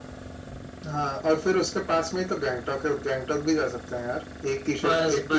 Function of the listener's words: taking over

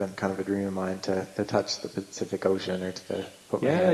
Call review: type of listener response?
taking over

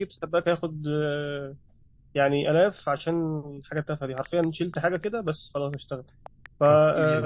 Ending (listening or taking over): taking over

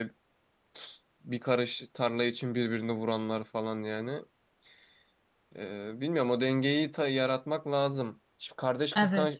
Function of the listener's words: listening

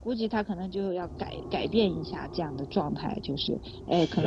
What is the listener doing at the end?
listening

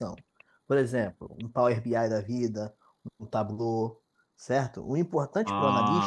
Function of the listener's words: listening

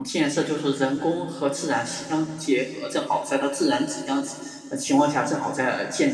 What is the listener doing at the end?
listening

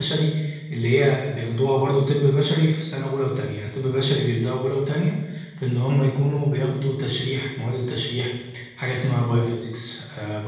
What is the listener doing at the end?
listening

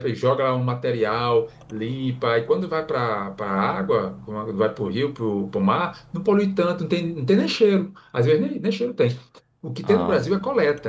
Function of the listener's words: listening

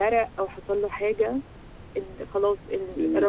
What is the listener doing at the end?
listening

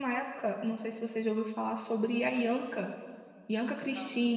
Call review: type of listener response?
listening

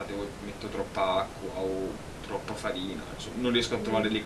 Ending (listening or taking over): taking over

